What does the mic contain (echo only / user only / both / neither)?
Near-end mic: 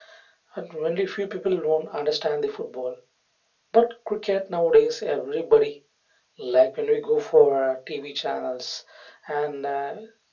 echo only